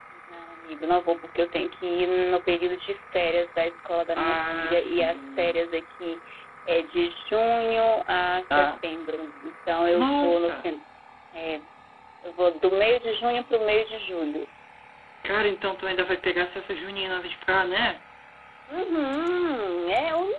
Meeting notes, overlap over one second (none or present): present